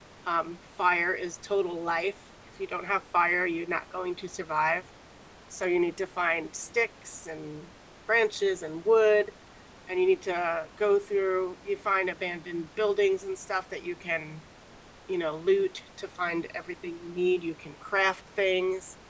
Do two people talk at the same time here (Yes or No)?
No